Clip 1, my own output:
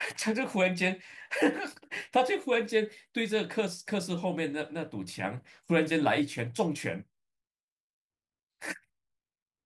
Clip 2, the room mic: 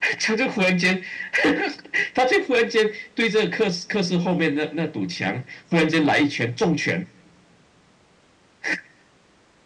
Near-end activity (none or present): none